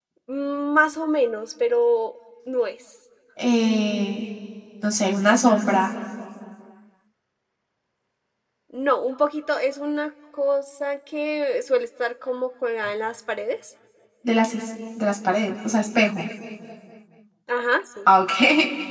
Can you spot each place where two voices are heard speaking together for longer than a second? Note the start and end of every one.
none

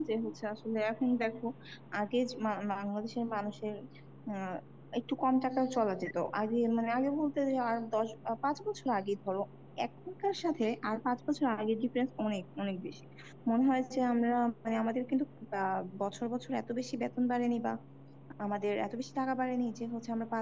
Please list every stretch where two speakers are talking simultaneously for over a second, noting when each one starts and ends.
none

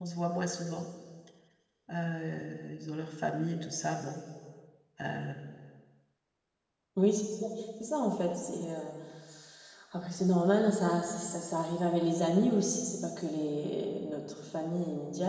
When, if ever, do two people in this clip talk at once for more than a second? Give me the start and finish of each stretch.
none

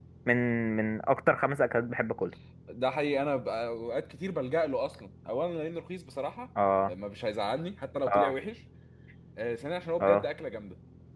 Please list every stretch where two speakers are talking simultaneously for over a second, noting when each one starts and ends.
none

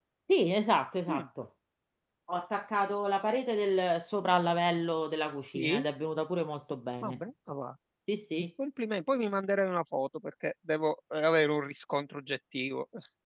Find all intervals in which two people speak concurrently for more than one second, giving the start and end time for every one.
none

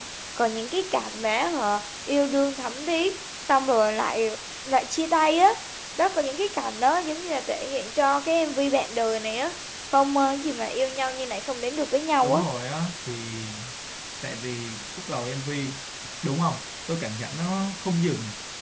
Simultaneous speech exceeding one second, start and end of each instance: none

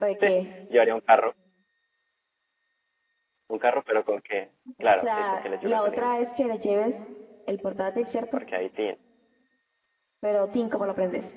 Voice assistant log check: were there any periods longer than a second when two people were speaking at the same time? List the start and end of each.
4.8-6.1

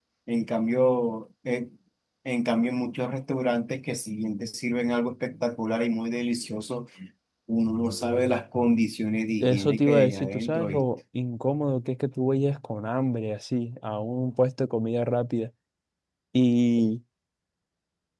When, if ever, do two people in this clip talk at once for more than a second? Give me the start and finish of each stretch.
9.4-10.8

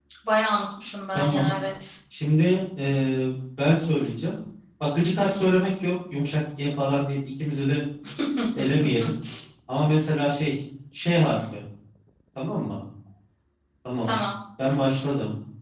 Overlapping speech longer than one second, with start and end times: none

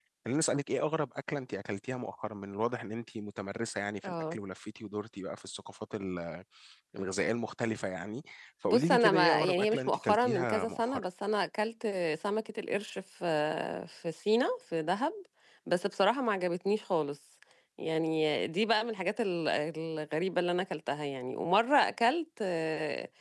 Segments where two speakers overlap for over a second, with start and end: 8.7-11.0

